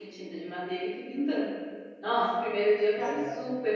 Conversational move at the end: listening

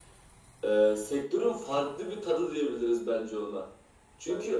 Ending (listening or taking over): listening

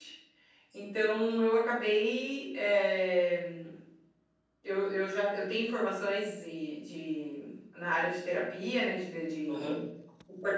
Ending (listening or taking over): listening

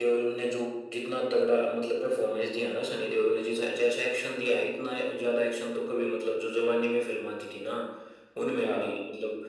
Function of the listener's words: listening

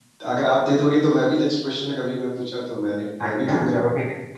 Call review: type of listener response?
taking over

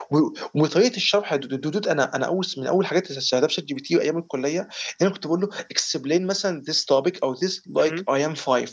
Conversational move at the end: listening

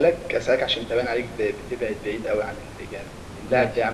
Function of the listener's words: listening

